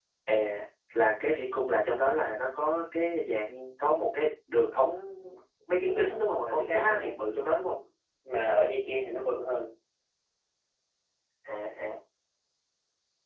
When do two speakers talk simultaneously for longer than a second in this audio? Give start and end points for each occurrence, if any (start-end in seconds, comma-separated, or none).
5.7-7.1